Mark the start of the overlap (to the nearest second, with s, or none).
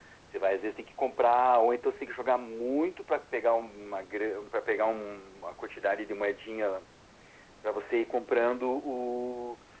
none